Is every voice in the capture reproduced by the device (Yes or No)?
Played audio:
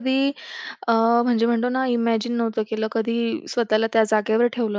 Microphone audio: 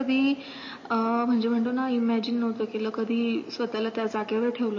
Yes